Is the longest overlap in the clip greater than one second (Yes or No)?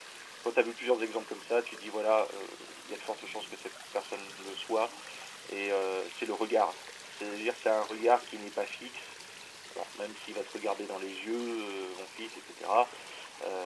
No